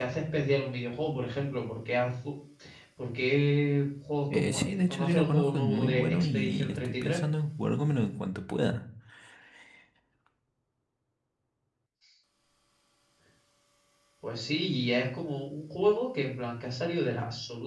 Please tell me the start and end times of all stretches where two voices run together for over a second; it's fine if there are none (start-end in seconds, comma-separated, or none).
4.3-7.2